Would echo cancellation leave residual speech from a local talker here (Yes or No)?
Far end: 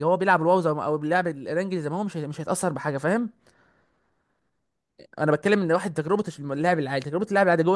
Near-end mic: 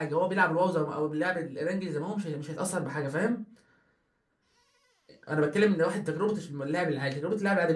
No